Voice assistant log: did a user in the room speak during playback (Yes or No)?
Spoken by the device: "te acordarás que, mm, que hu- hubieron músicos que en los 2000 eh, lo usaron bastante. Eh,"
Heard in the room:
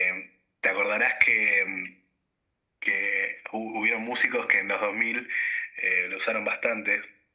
No